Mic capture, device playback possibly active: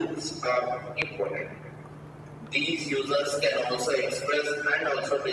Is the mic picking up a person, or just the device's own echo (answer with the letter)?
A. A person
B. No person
B